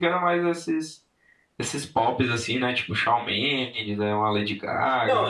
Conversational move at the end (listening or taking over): taking over